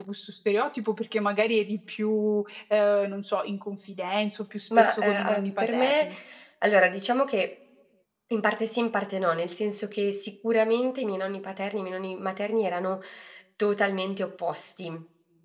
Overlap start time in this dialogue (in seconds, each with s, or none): 4.7 s